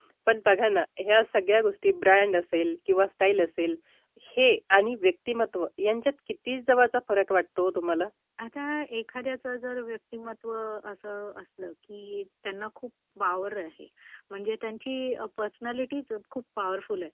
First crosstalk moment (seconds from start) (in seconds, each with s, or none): none